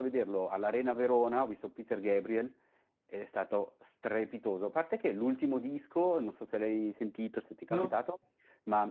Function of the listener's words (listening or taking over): listening